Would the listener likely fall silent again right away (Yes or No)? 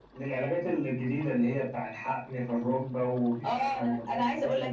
No